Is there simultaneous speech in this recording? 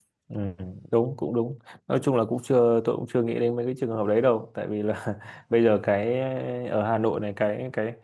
No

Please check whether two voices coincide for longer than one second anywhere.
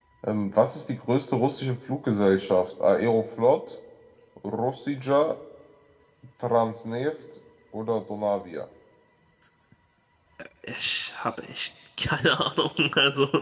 No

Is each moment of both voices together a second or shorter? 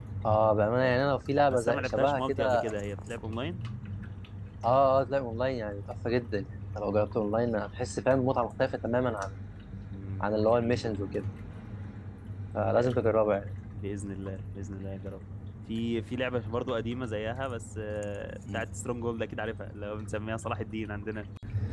No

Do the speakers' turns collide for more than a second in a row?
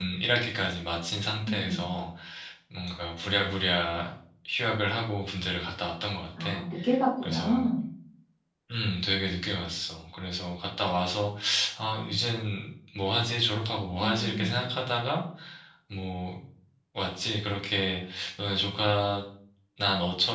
No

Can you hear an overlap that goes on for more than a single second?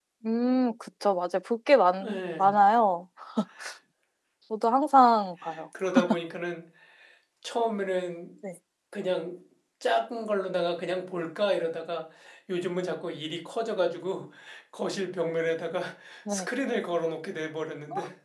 No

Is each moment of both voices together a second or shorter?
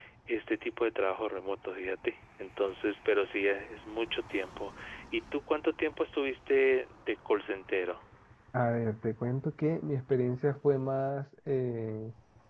Yes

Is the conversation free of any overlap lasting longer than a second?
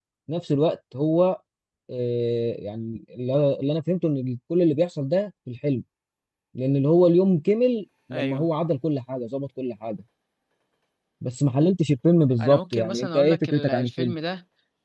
No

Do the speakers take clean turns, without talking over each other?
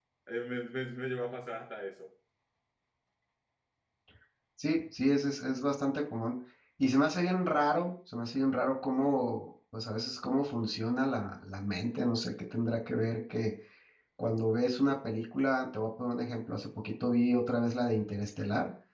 Yes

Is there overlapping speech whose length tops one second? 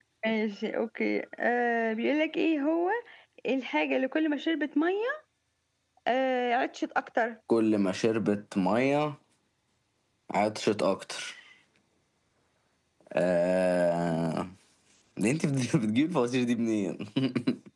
No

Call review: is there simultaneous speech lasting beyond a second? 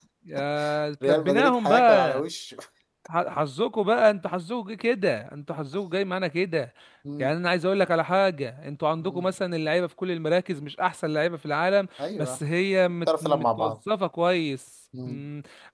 Yes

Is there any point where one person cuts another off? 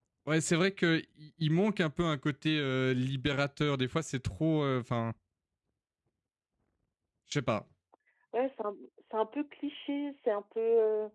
No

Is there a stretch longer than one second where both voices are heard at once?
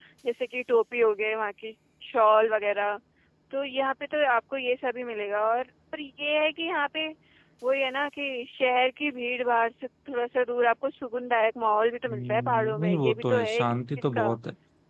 Yes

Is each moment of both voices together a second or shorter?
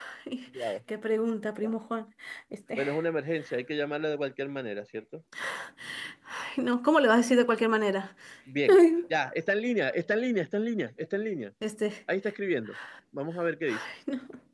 Yes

